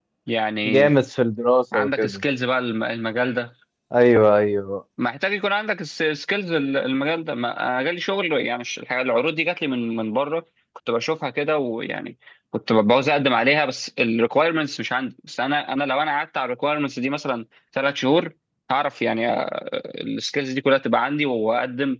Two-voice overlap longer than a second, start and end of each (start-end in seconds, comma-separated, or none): none